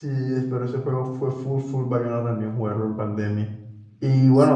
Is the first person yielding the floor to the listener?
No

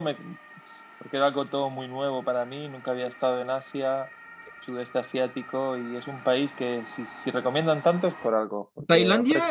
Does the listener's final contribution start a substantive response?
Yes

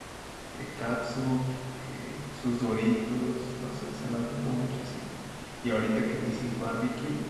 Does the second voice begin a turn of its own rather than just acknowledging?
No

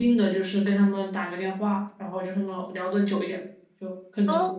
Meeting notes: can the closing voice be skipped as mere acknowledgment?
Yes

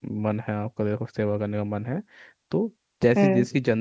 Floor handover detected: No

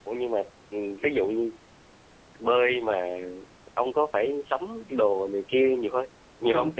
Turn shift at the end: Yes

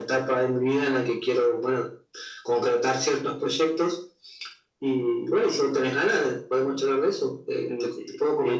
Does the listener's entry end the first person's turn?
Yes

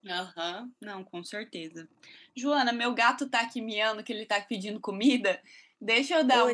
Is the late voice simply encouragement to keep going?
Yes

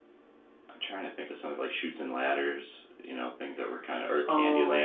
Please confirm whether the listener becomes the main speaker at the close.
Yes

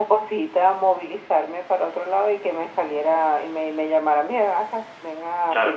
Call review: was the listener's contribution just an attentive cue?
Yes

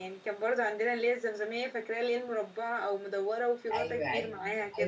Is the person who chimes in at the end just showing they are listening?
No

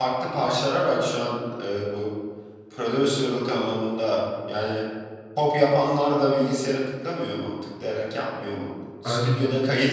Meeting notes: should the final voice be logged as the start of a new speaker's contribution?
No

